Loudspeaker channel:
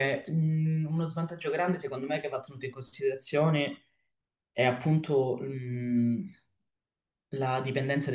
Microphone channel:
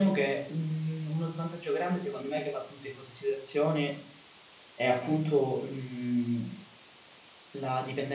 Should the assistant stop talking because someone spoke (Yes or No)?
No